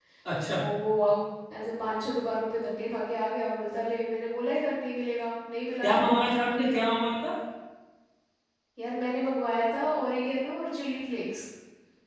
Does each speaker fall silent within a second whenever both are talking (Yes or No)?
Yes